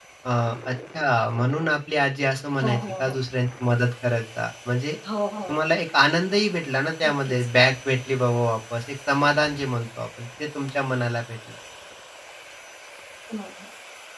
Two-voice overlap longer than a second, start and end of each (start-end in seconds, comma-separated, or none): none